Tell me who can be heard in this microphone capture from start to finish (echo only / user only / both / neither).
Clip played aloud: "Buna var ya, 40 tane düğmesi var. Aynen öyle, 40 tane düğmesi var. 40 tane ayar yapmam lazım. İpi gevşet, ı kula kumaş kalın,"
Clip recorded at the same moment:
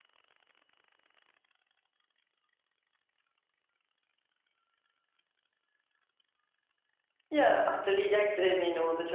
user only